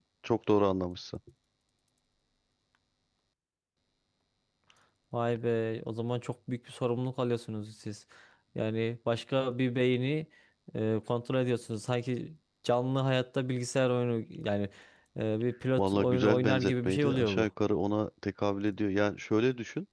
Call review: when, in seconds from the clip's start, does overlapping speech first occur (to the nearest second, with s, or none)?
16 s